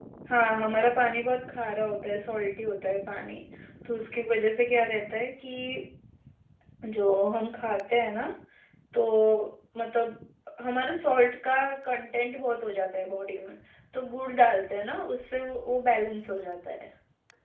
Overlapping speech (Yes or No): No